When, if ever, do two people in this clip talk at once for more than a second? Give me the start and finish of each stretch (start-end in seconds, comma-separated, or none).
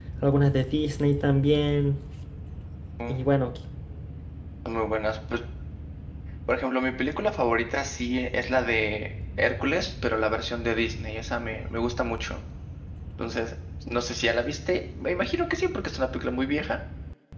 none